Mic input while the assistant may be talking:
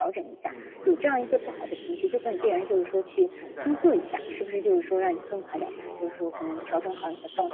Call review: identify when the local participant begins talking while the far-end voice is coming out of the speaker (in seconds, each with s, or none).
0.4 s